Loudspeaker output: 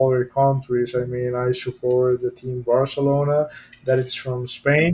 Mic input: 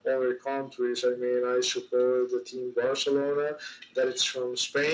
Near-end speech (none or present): none